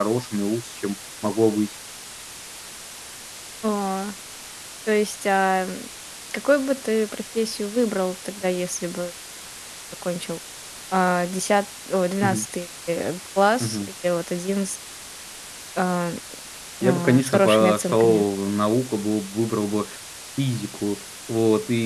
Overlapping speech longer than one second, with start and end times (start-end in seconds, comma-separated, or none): 16.9-18.2